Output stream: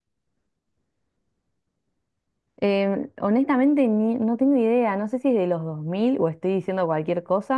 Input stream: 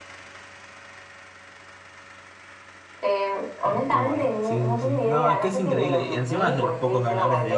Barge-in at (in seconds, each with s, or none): 3.6 s